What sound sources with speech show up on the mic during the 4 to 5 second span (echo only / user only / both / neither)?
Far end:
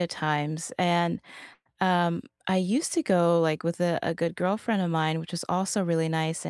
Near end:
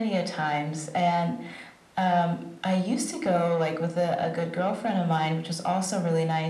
echo only